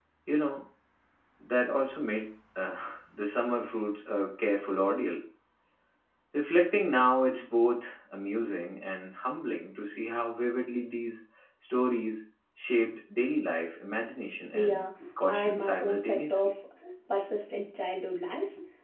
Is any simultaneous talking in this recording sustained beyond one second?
Yes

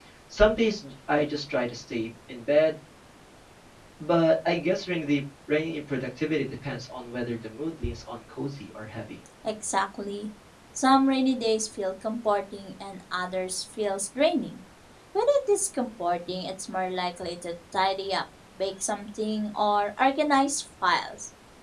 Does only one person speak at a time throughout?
Yes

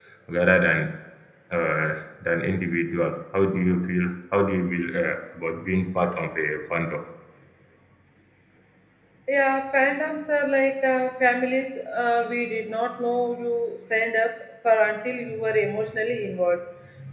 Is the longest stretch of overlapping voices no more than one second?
Yes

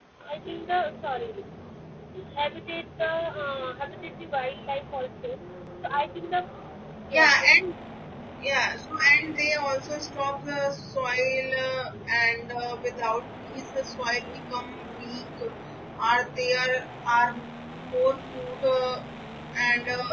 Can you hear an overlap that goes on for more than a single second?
No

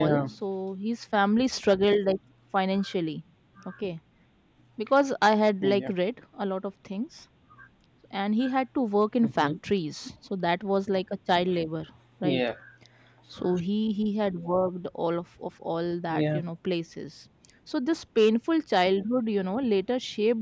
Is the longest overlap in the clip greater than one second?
No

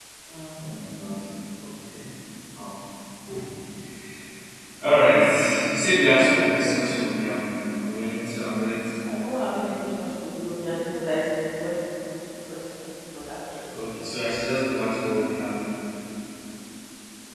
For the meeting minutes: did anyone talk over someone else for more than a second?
No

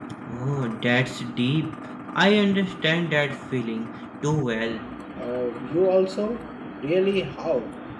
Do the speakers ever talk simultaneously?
No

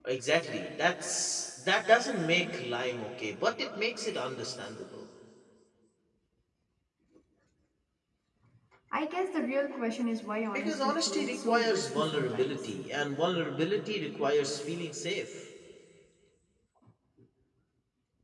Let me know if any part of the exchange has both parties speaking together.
Yes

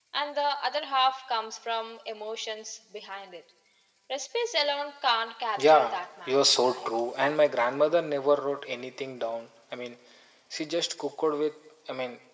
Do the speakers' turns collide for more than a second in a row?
Yes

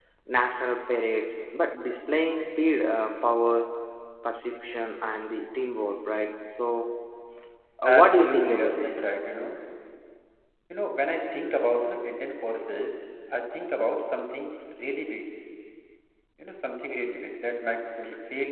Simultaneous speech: Yes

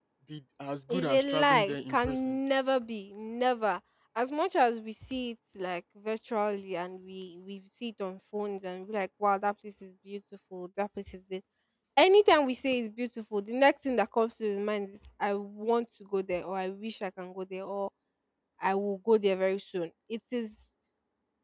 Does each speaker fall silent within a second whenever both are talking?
No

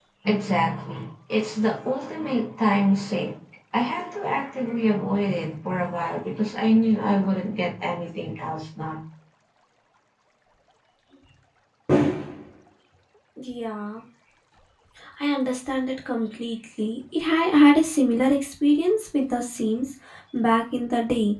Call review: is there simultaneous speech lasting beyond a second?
No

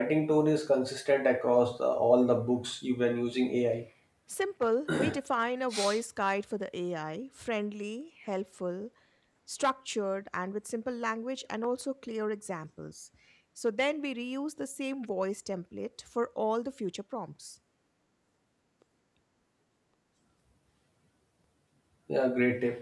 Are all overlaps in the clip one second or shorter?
Yes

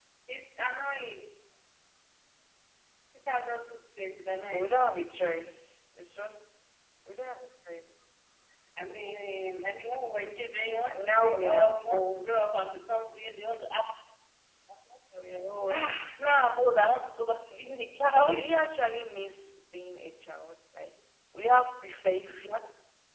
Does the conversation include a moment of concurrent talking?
Yes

